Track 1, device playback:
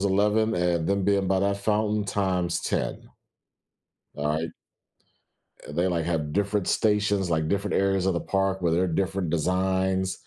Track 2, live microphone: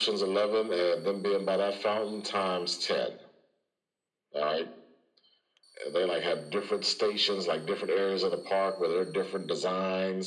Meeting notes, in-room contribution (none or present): none